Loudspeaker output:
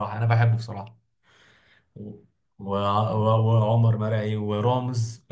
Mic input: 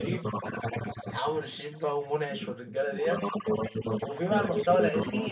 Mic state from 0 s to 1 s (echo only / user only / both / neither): both